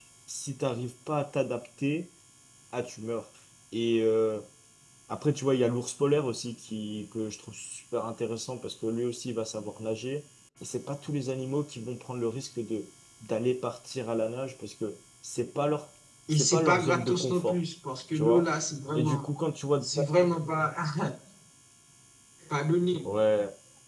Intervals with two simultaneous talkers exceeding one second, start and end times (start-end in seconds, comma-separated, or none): 16.3-17.6